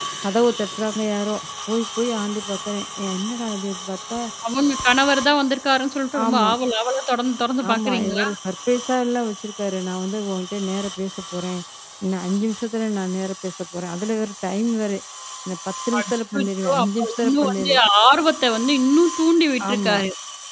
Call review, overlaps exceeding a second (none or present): present